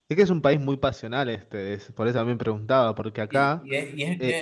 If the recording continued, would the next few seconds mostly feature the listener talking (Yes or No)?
Yes